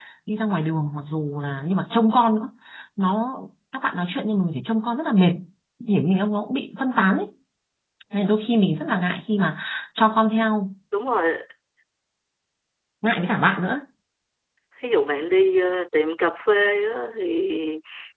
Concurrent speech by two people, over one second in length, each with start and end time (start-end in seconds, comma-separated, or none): none